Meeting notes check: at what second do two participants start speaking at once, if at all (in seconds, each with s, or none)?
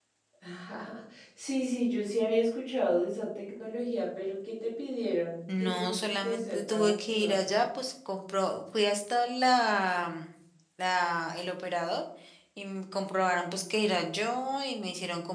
5.5 s